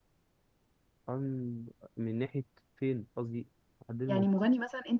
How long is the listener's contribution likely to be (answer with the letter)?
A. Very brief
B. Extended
B